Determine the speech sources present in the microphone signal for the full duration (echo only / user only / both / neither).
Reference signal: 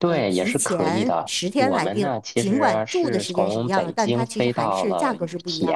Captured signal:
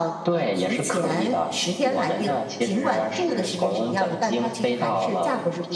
echo only